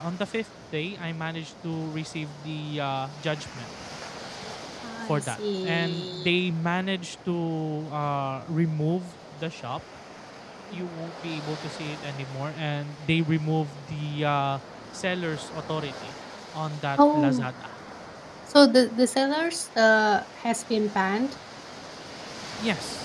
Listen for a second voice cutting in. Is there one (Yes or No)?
Yes